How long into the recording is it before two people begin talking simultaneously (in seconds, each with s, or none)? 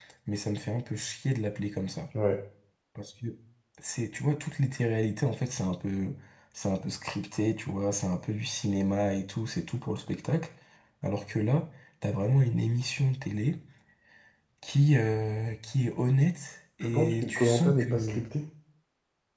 16.8 s